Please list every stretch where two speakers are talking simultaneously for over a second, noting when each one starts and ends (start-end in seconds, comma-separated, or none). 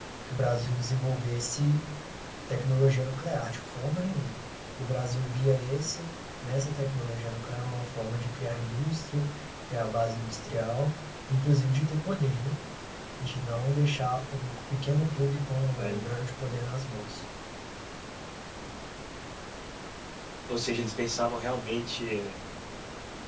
none